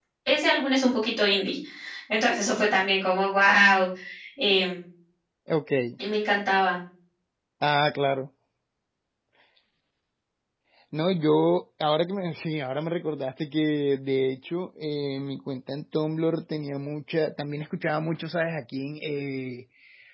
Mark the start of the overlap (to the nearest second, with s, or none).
none